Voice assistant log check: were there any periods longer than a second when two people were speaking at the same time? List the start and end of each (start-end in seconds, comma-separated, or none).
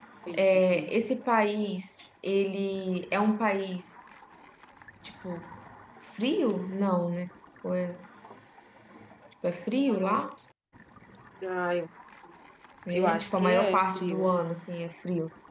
12.9-14.3